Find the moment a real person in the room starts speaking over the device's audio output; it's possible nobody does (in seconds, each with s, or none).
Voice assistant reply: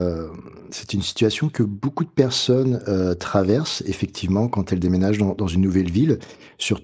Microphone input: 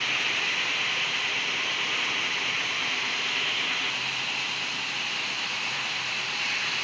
none